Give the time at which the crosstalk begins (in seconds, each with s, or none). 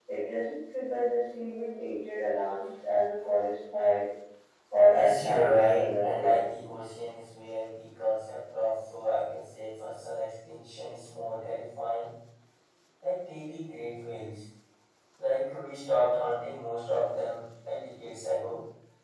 4.9 s